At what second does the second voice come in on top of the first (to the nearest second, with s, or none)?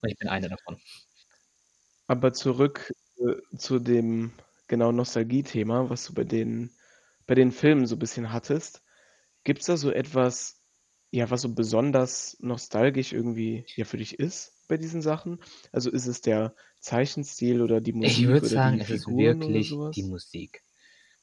18 s